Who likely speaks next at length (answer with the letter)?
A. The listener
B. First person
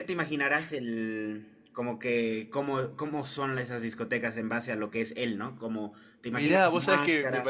A